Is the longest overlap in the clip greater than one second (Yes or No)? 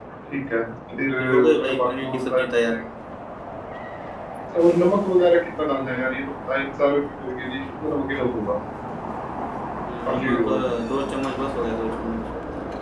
Yes